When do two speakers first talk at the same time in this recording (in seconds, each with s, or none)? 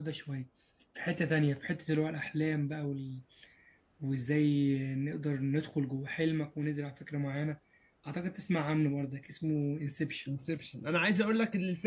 none